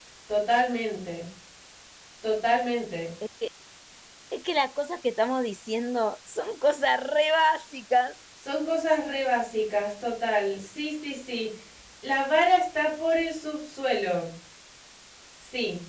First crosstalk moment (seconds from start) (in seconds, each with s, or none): none